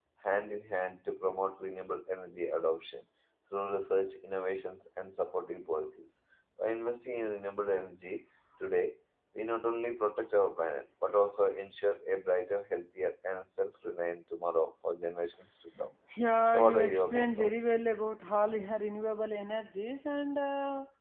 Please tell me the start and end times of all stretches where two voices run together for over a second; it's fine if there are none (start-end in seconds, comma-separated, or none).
16.5-17.7